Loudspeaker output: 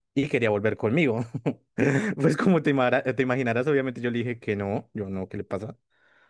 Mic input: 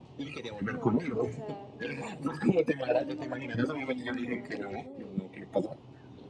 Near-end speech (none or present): present